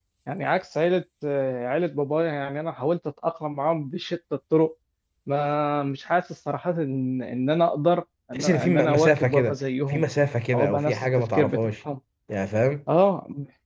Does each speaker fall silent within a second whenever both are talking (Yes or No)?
No